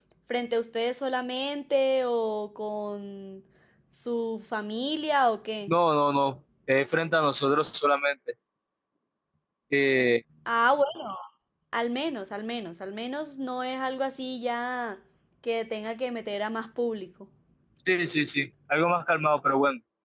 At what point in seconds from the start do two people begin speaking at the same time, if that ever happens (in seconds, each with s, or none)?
none